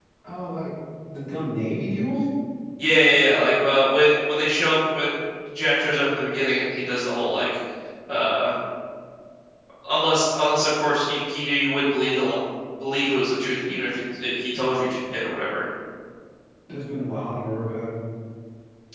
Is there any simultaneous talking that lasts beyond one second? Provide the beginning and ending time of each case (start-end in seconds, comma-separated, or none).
none